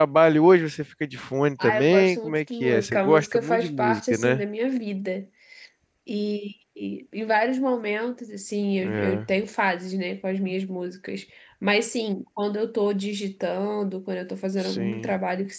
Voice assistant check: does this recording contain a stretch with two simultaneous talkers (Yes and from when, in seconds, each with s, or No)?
Yes, from 1.6 s